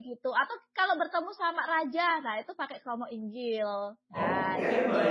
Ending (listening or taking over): taking over